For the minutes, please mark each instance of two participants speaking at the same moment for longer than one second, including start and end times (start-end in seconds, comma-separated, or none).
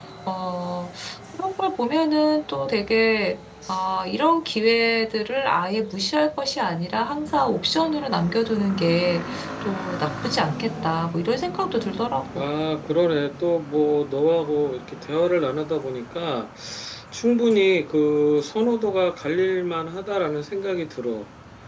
none